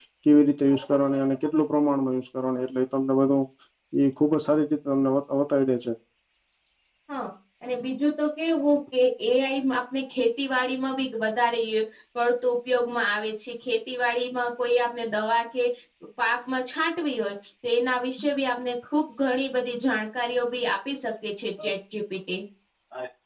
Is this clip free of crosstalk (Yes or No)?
Yes